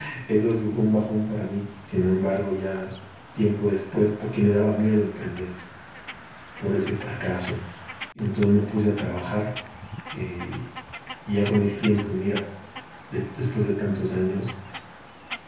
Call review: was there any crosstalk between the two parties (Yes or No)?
No